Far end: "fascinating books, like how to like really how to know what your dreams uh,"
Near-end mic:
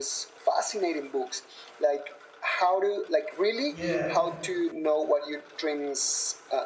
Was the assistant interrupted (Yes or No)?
Yes